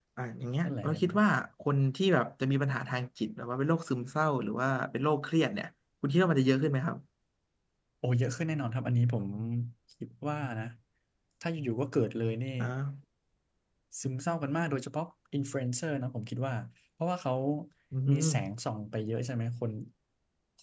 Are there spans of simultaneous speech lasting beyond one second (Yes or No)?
No